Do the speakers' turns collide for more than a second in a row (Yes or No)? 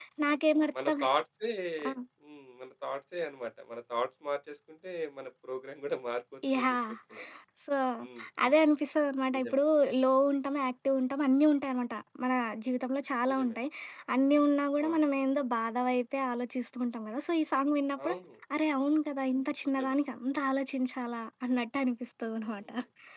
No